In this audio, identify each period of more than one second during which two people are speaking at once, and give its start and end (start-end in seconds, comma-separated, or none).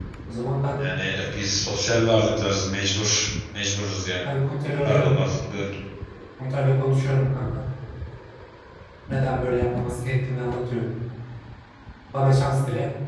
none